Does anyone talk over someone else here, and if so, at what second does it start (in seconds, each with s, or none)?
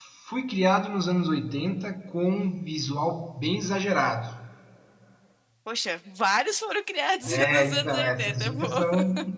7.2 s